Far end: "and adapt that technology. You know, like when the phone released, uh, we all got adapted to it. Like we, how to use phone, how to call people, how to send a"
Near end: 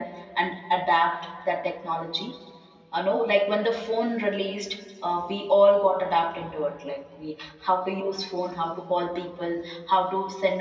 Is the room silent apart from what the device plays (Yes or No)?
Yes